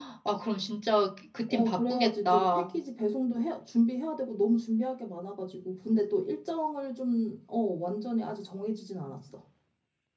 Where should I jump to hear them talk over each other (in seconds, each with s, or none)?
1.5 s